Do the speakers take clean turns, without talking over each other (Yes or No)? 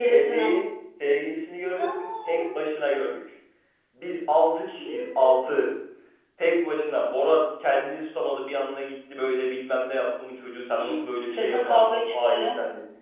No